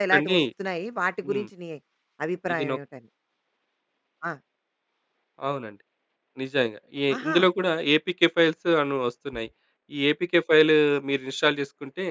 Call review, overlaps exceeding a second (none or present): none